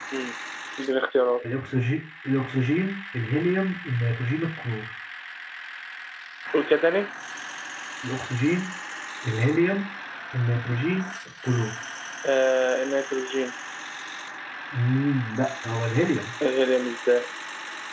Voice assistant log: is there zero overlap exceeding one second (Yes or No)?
Yes